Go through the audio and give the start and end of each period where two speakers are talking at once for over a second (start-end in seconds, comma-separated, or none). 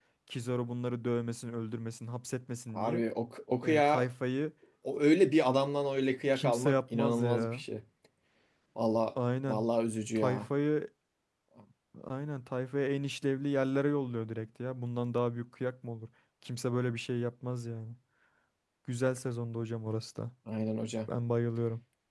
6.4-7.6